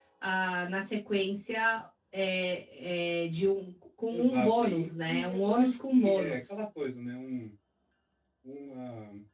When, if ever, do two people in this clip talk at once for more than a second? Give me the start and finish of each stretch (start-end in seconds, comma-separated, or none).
4.1-6.6